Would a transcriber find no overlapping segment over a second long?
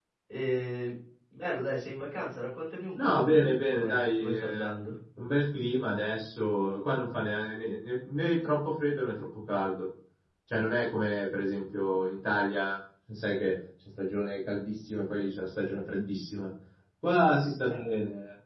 No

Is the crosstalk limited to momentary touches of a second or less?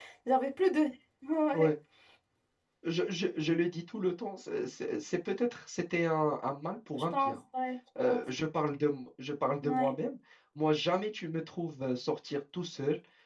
Yes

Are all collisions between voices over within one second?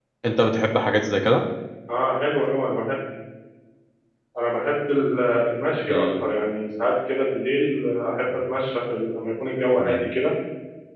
Yes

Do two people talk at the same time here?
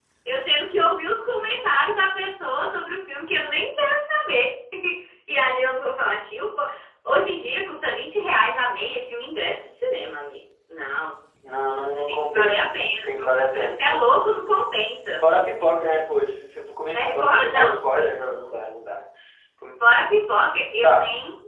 Yes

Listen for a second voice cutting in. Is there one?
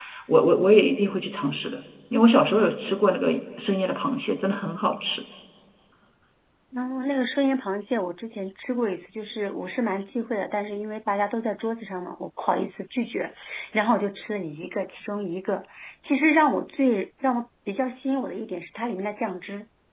No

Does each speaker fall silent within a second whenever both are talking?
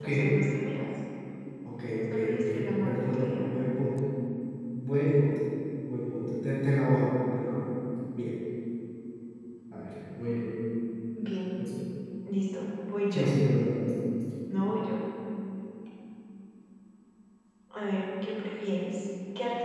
No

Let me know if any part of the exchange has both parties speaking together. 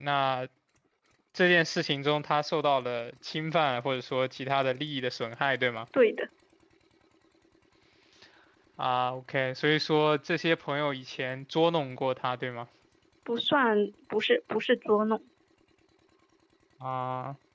No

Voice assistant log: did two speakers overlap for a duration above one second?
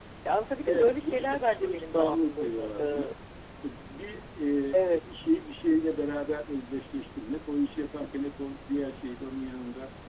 Yes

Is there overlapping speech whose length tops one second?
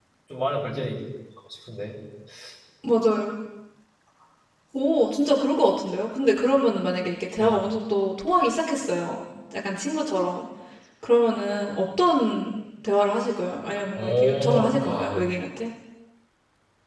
Yes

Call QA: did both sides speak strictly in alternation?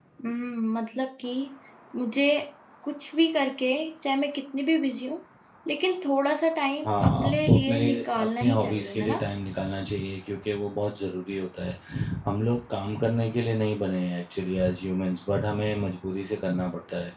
No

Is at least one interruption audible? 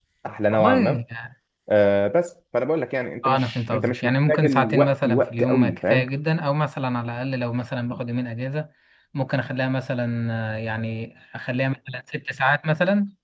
Yes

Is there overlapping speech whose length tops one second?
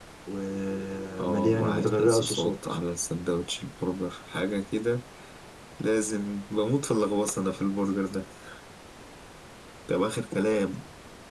Yes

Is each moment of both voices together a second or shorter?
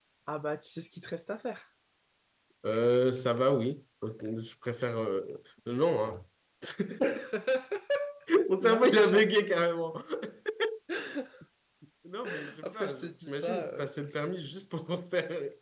No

